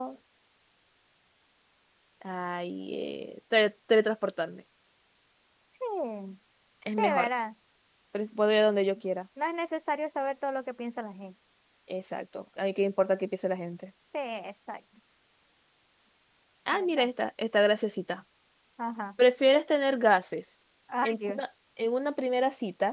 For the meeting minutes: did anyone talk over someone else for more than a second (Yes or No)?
No